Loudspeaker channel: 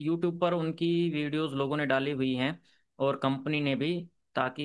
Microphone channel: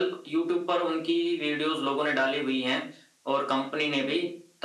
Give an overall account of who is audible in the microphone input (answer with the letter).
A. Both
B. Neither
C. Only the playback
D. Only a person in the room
C